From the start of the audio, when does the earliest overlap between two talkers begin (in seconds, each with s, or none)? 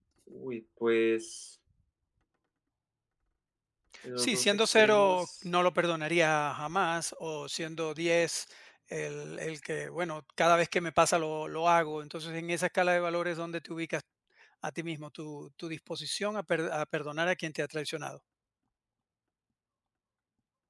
4.2 s